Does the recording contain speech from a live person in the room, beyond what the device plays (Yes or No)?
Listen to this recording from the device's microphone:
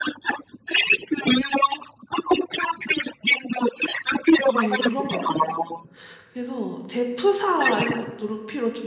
Yes